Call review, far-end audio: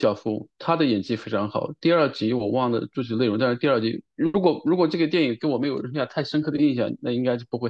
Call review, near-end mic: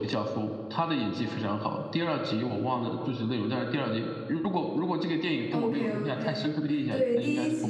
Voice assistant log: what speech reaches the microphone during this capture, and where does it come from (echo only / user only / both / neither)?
both